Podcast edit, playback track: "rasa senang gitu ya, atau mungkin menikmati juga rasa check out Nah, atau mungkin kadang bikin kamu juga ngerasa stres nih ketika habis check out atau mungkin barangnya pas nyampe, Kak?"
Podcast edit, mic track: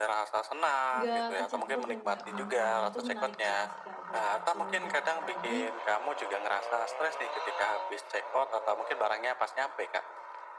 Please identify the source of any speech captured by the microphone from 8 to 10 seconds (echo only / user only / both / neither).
echo only